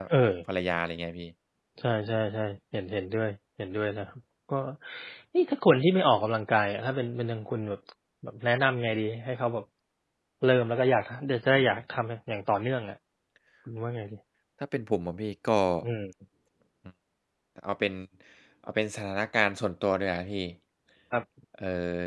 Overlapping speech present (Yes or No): No